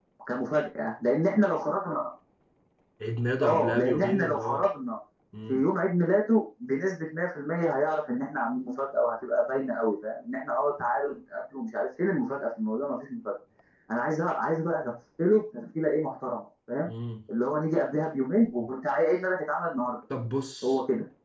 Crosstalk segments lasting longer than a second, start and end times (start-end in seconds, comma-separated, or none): 3.4-4.7